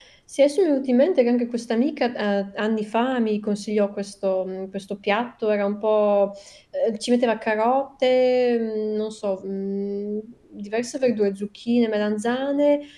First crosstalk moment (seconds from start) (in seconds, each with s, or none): none